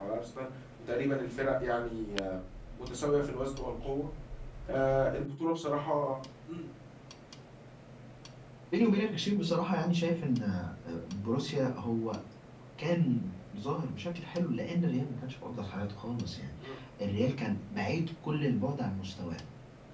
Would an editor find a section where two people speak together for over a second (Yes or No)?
No